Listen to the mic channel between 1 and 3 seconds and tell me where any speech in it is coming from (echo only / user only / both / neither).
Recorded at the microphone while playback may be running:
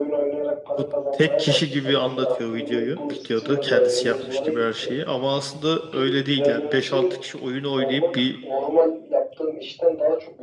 both